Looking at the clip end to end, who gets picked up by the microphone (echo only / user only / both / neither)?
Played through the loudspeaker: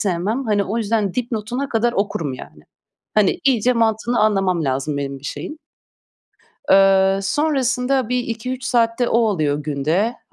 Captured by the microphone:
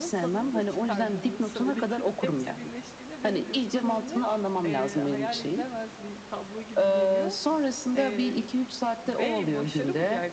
both